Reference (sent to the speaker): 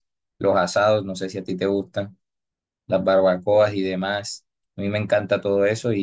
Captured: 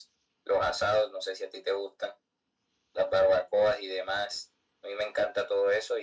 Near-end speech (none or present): none